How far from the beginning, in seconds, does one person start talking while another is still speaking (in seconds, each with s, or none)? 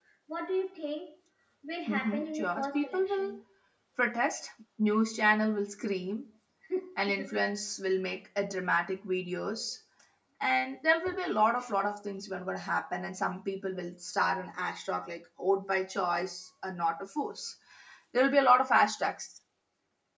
1.9 s